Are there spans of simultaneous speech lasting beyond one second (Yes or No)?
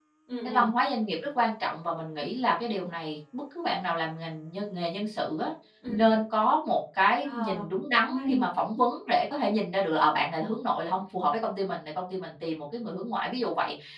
No